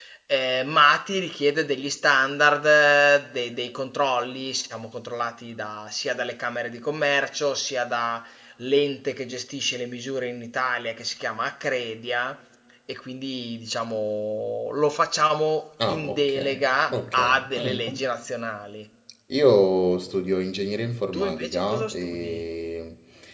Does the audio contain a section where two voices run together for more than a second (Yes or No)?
Yes